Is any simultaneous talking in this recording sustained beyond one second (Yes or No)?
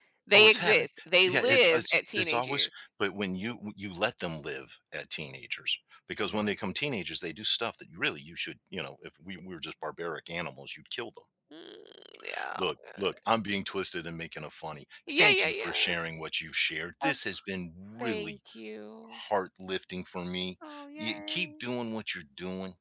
Yes